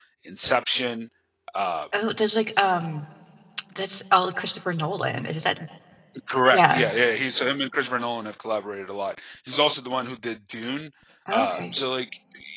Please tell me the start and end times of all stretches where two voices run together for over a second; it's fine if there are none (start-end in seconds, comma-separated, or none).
none